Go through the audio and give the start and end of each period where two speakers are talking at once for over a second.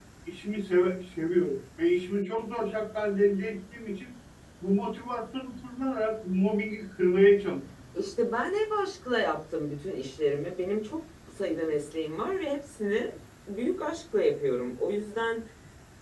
none

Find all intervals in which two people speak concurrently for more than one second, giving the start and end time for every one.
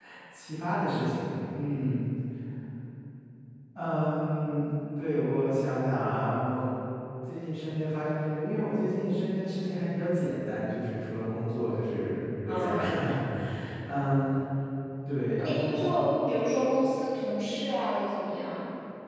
none

